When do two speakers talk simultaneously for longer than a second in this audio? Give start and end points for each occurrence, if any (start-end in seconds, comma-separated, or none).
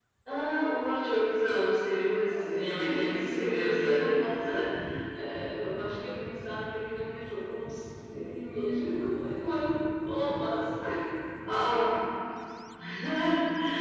2.8-4.6